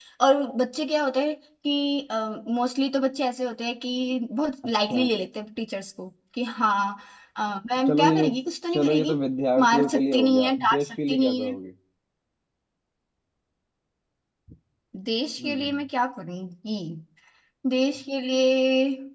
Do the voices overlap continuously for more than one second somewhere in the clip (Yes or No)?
Yes